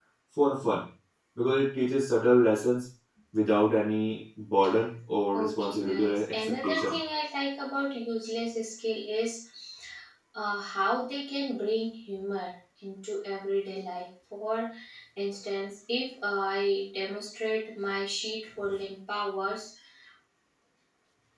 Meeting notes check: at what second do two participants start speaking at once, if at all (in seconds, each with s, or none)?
5.3 s